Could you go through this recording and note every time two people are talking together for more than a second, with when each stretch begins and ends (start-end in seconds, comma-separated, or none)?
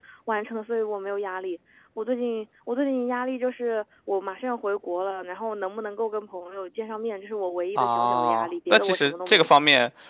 7.8-9.5